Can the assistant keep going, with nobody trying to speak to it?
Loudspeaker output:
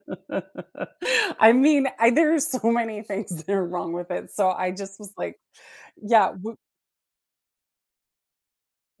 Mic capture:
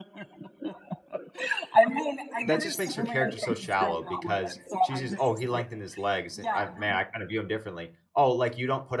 No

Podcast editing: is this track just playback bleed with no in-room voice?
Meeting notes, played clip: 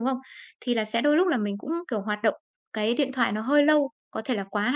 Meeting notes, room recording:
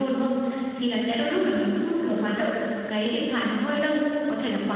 Yes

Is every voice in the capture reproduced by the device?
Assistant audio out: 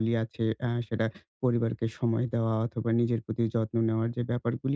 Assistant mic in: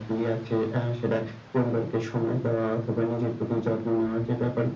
Yes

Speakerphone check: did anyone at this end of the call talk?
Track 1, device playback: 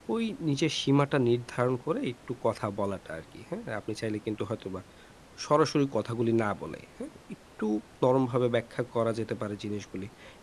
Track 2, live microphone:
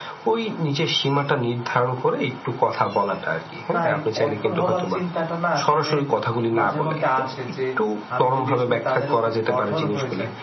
Yes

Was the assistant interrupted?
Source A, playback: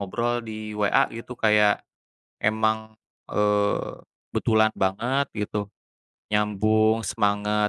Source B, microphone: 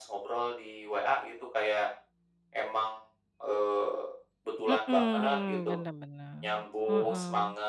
Yes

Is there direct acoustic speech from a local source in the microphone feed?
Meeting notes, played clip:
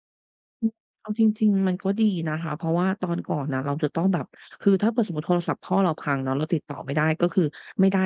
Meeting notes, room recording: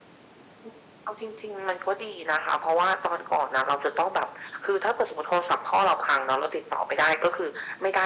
No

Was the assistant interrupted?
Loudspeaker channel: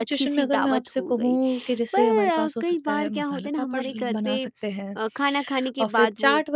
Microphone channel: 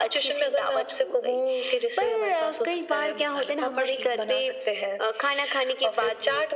No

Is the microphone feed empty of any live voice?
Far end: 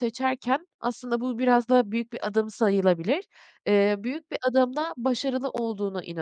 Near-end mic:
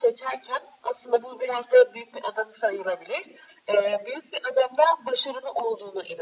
Yes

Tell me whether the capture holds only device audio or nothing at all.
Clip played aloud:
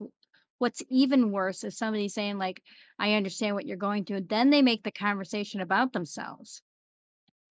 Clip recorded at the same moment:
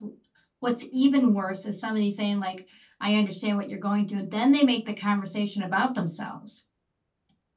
Yes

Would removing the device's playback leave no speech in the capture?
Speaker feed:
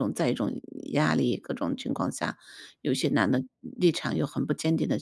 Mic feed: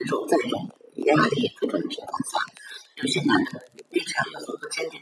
Yes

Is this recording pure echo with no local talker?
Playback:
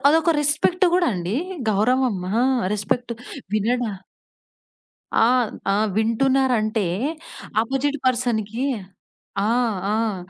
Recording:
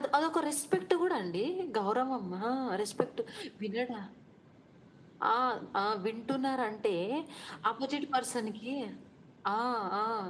Yes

